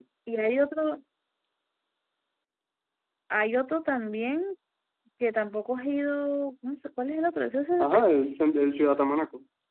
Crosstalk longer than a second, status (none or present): none